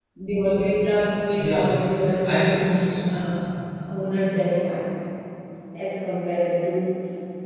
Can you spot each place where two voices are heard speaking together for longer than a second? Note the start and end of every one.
1.4-2.6

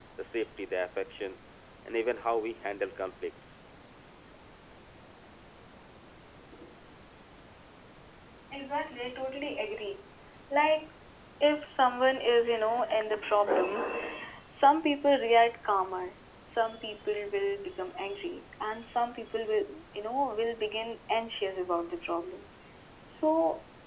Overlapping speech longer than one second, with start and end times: none

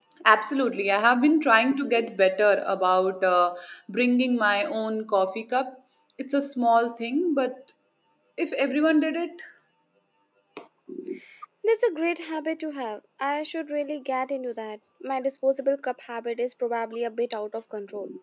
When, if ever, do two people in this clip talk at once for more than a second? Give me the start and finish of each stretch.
none

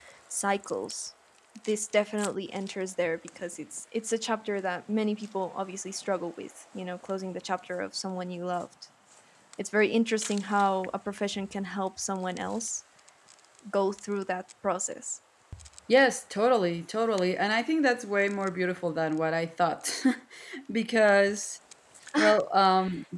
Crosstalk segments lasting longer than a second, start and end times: none

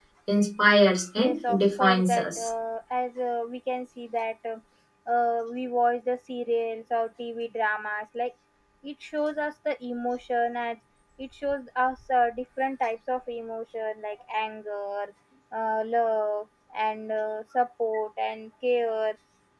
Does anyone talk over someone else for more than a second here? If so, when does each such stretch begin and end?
1.2-2.5

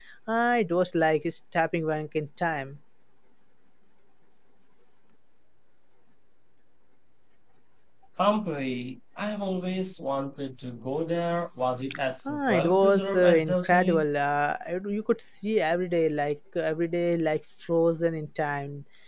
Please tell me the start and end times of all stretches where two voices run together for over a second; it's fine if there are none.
12.2-14.0

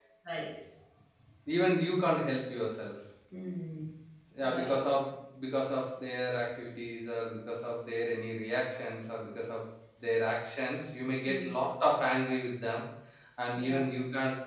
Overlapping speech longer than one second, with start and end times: none

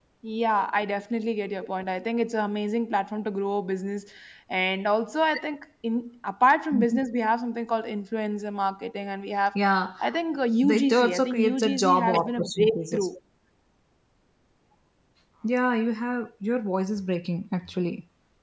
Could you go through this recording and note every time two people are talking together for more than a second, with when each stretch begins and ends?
10.6-13.1

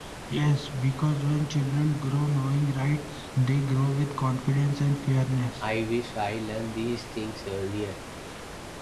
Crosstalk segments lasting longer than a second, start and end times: none

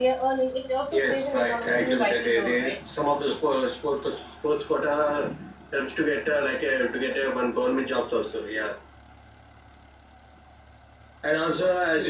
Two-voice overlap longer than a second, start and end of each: 0.9-2.7

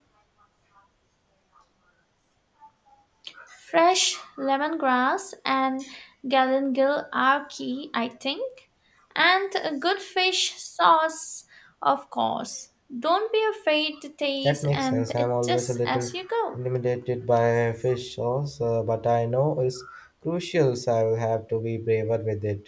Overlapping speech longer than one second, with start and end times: 14.4-16.1

